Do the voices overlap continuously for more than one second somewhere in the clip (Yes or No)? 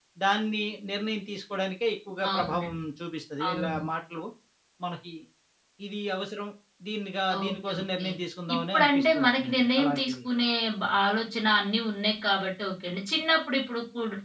Yes